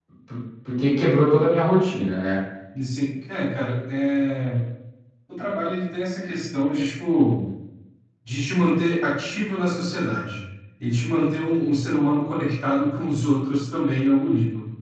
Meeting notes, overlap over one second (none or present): none